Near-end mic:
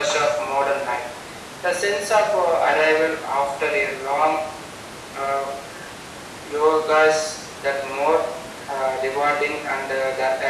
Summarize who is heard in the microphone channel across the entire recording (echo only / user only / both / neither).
echo only